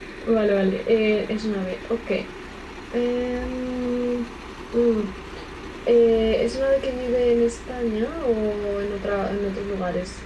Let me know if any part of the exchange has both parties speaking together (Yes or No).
No